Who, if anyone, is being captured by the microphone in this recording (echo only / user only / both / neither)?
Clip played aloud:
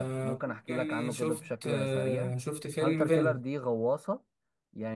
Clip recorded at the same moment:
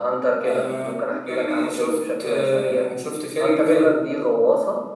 echo only